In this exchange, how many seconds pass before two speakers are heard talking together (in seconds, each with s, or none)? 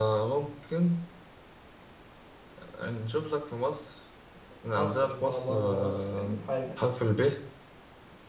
4.8 s